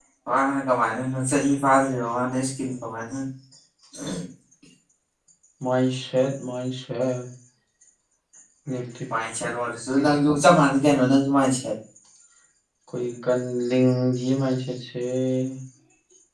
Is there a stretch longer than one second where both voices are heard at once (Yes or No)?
No